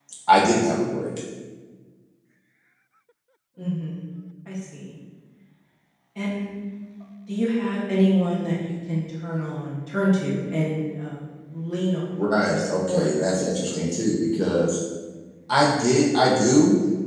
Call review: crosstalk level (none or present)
present